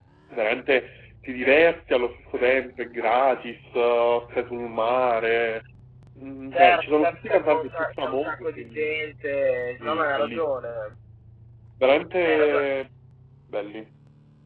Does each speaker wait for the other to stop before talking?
No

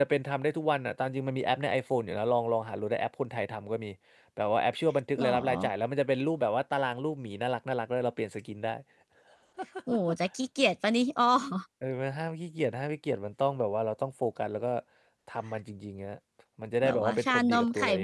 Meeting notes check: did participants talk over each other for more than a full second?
Yes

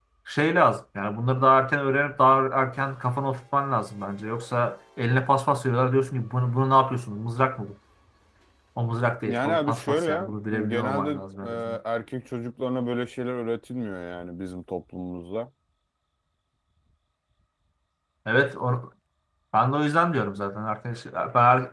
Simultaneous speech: Yes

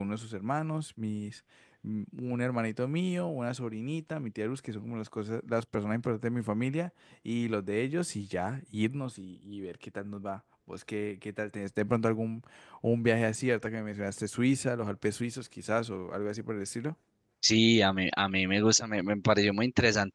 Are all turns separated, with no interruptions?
Yes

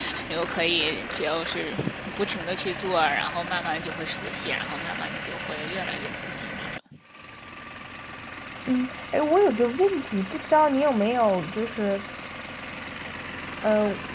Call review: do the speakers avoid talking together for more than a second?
Yes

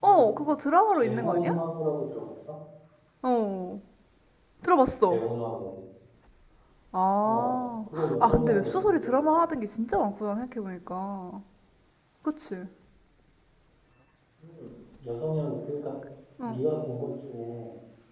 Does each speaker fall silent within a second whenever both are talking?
No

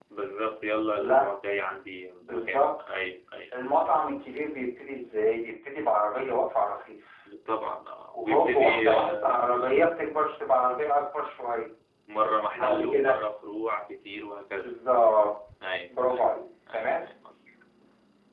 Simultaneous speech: Yes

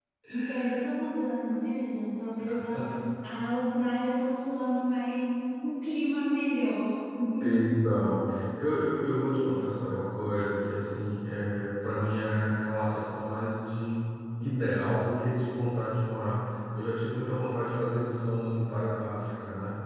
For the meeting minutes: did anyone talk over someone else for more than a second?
No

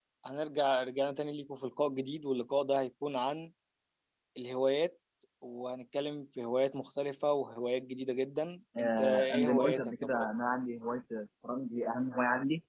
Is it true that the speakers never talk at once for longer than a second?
No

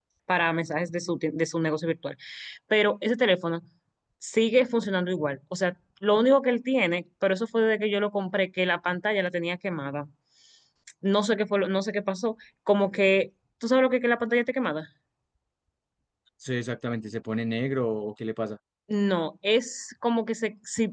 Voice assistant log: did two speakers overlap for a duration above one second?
No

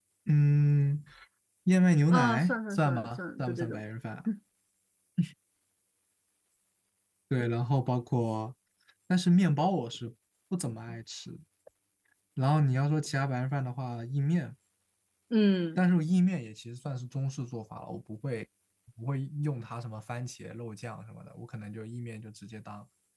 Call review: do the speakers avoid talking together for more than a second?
No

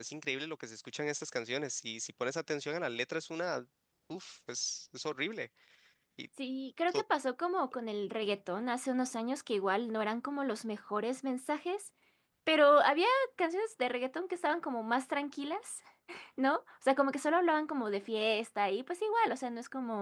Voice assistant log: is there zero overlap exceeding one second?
Yes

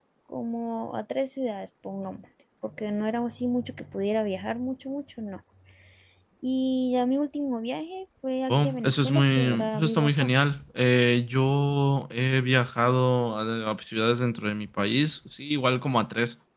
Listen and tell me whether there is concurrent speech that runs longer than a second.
Yes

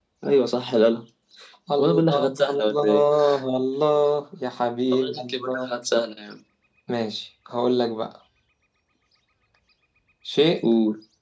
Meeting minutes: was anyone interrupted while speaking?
Yes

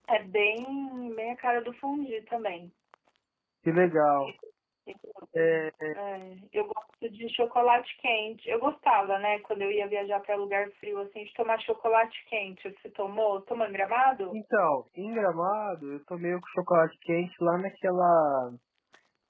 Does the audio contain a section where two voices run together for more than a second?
No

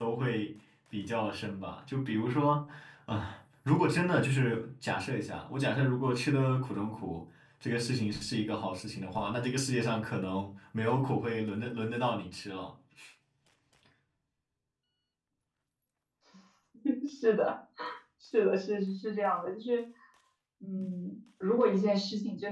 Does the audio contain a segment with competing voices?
No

